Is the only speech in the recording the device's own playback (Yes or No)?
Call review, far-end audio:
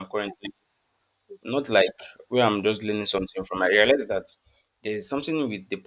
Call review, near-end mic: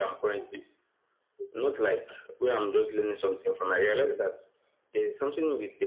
Yes